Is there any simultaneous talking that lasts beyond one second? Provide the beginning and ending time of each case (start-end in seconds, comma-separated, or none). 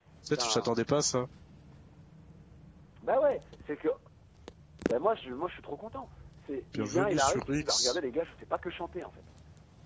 6.7-8.0